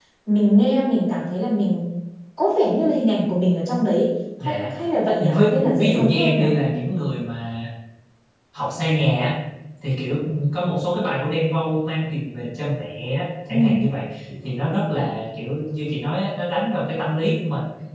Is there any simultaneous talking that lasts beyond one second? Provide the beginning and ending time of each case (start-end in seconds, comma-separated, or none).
5.2-6.5